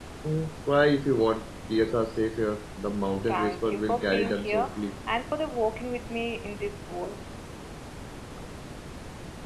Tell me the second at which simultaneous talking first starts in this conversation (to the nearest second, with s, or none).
3 s